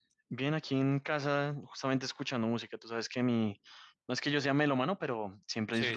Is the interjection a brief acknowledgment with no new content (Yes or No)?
Yes